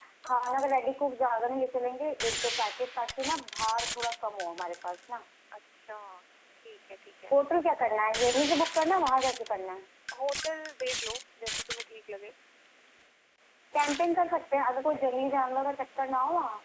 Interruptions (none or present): none